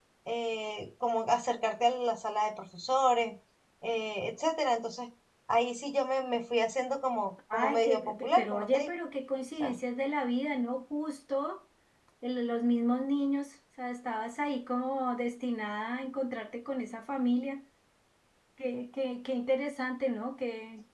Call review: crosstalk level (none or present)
present